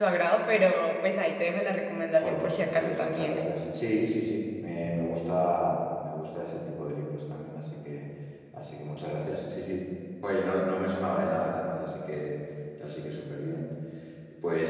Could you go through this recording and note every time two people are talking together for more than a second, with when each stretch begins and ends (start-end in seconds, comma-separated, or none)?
2.2-3.4